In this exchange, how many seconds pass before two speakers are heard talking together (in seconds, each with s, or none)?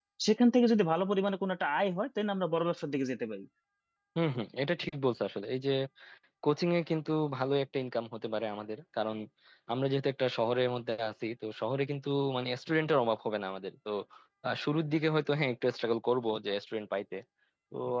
none